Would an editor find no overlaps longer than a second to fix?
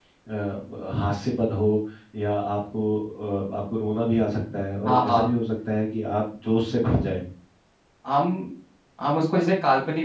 Yes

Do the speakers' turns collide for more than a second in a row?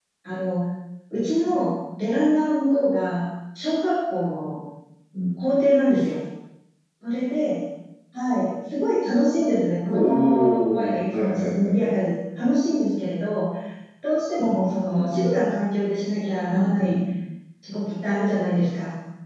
Yes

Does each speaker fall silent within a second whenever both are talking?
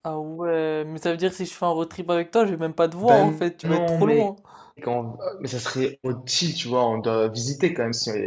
No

